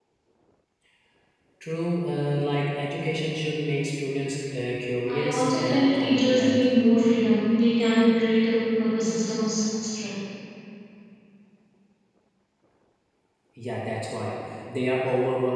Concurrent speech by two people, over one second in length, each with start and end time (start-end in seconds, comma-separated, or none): 5.1-6.6